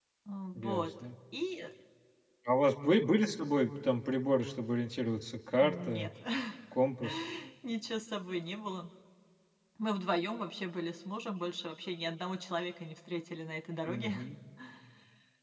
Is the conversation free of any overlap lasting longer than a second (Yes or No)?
Yes